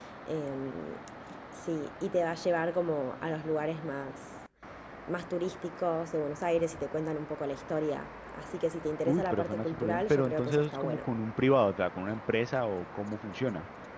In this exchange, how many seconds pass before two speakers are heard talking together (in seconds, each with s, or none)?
9.1 s